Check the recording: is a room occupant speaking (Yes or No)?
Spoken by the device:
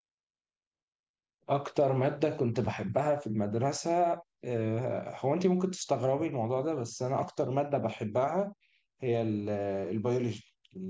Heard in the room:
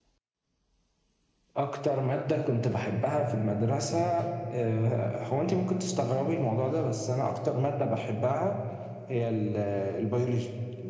No